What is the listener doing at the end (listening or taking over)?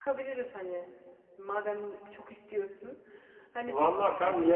taking over